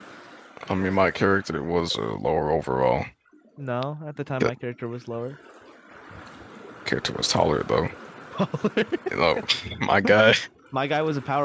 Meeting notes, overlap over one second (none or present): none